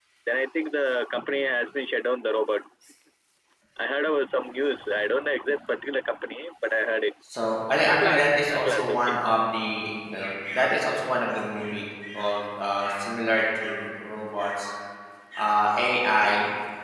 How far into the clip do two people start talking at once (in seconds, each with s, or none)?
7.9 s